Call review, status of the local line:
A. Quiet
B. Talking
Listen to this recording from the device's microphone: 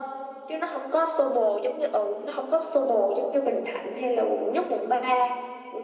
A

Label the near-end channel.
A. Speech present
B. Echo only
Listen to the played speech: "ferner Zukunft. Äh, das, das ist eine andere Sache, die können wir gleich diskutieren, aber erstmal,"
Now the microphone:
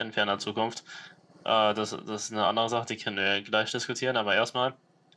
B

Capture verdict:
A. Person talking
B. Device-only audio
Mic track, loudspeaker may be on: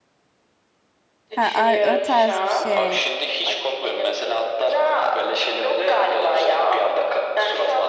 A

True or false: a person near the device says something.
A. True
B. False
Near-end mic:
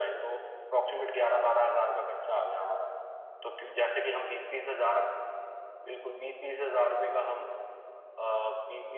B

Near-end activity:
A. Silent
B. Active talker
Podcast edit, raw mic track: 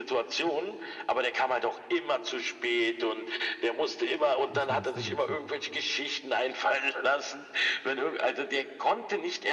B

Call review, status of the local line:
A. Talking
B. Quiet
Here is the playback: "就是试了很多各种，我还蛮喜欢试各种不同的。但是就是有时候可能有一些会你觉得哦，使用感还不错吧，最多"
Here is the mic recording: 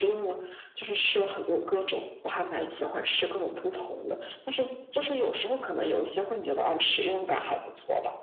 B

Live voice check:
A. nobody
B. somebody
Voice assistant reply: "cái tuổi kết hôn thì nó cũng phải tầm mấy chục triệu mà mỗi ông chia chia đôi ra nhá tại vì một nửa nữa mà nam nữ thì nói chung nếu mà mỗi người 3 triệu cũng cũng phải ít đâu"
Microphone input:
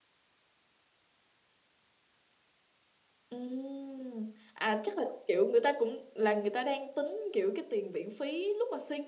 B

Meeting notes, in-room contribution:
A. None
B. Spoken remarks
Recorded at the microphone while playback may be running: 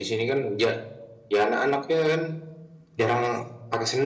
A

